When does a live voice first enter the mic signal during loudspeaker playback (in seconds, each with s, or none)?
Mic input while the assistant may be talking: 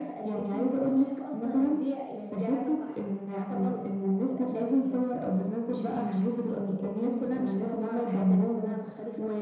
none